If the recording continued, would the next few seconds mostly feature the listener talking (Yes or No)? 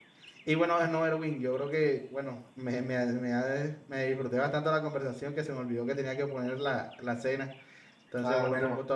Yes